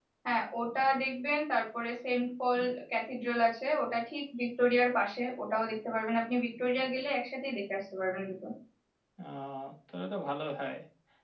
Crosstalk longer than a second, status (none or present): none